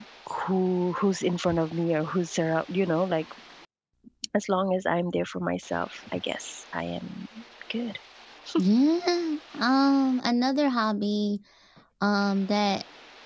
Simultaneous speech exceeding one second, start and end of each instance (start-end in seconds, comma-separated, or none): none